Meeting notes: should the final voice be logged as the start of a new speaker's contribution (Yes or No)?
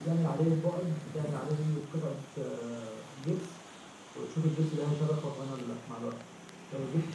No